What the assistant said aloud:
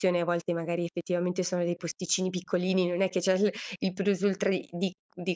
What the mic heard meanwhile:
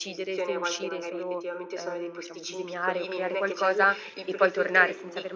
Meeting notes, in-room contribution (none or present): present